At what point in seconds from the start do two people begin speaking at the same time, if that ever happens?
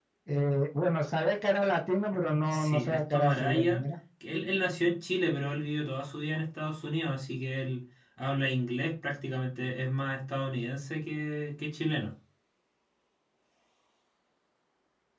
2.5 s

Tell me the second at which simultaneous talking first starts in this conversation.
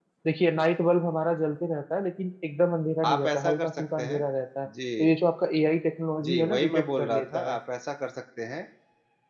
3.0 s

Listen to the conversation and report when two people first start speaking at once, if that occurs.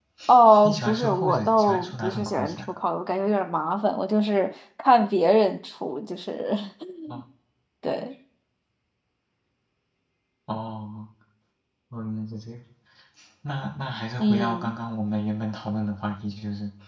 0.6 s

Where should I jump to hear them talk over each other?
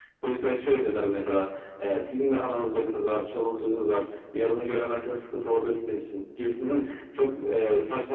none

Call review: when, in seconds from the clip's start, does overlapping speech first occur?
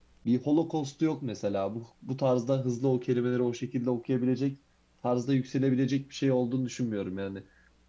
none

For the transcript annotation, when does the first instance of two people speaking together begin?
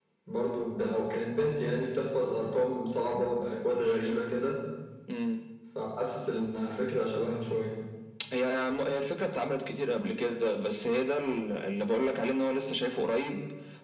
none

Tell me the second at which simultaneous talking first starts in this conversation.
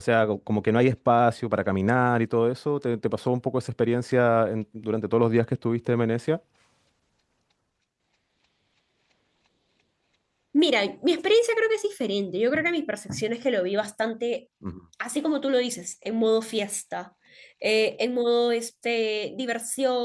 none

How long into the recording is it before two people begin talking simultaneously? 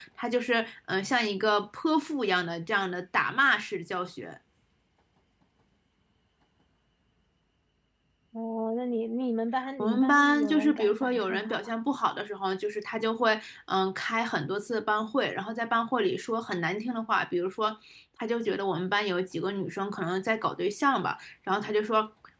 9.6 s

